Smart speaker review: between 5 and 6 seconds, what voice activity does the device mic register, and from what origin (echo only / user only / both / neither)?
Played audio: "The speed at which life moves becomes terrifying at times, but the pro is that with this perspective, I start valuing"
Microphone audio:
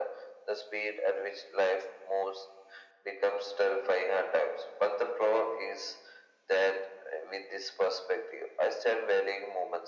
echo only